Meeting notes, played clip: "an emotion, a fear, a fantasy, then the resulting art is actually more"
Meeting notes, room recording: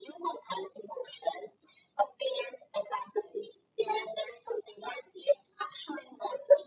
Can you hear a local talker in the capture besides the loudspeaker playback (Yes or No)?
No